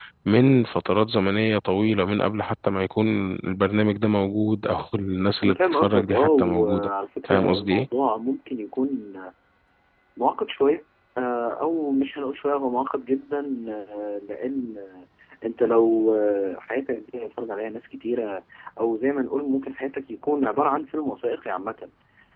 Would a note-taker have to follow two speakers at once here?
Yes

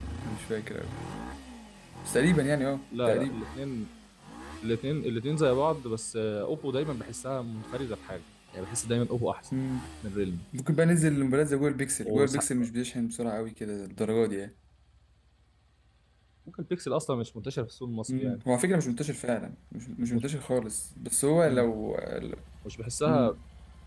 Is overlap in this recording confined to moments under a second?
Yes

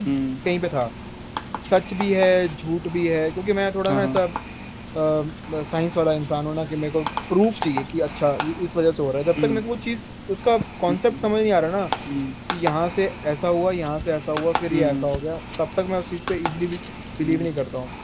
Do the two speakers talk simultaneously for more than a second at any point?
No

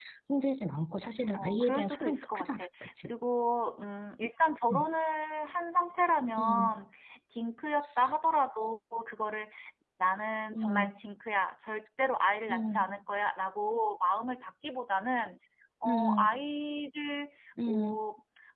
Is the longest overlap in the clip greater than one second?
Yes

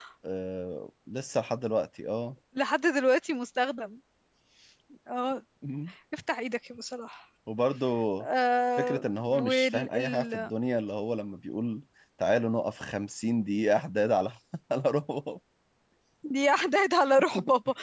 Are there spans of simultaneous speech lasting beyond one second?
Yes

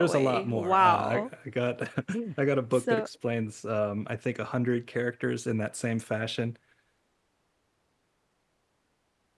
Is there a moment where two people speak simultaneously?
Yes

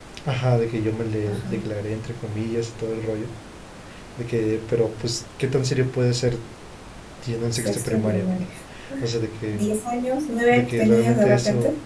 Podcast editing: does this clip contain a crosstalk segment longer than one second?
Yes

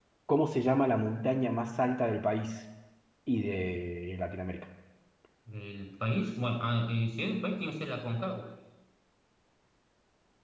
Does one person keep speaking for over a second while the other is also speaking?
No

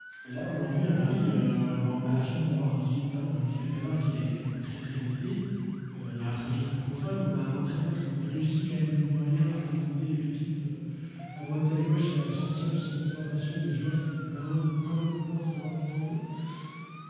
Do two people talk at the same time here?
No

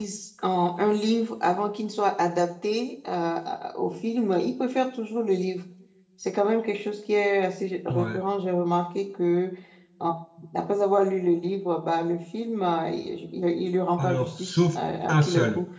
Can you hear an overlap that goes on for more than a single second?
Yes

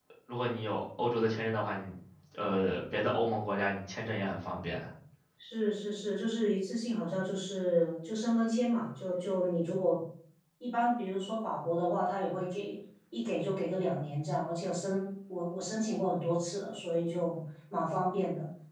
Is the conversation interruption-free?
Yes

